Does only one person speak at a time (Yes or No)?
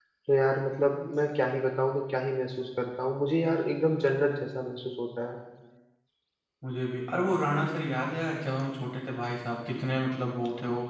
Yes